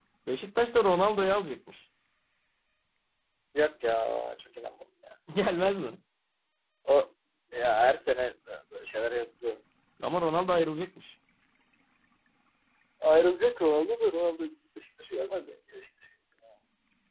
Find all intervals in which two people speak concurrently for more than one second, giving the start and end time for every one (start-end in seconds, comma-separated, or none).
none